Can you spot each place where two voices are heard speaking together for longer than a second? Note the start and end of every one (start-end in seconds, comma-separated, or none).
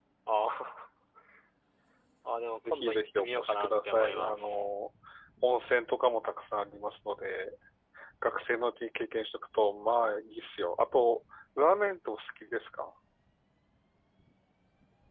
2.7-4.4